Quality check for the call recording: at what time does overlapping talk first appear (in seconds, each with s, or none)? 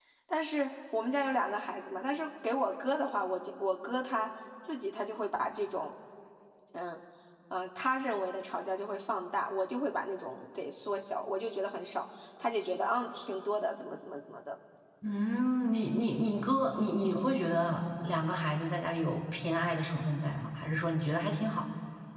none